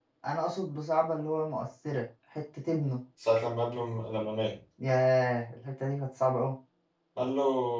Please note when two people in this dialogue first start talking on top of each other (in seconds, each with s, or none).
none